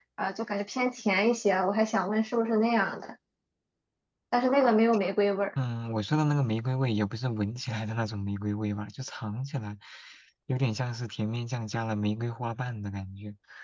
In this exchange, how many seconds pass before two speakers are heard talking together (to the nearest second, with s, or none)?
none